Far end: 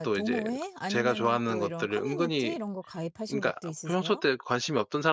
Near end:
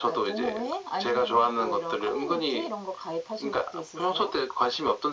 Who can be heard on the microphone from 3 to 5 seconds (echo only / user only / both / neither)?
echo only